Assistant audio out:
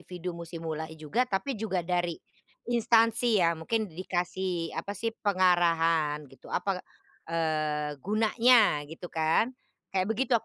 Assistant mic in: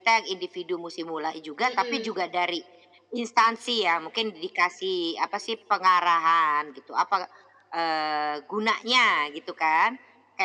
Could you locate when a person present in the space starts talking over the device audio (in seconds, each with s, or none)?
1.6 s